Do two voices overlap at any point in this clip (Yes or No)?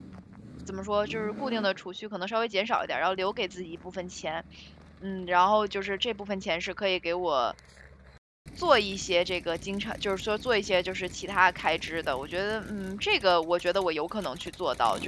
No